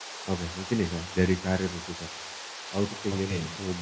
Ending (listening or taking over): listening